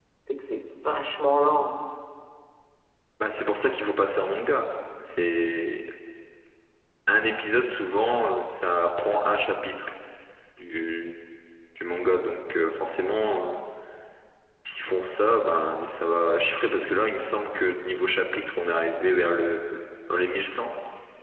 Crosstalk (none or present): none